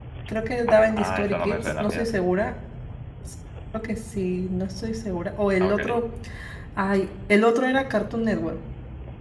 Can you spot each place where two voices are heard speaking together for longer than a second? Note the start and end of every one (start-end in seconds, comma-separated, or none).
0.9-2.2